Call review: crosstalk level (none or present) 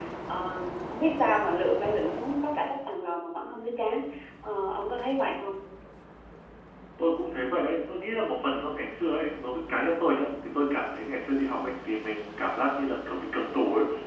none